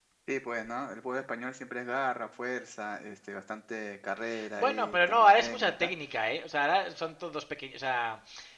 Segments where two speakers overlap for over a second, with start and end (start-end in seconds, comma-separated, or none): 4.6-5.9